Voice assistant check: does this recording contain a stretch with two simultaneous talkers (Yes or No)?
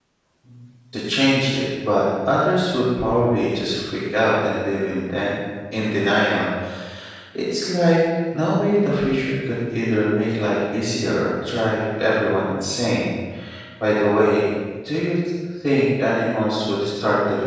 No